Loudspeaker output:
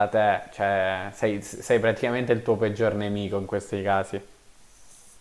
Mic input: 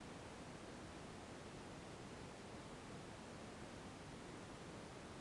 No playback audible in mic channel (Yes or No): Yes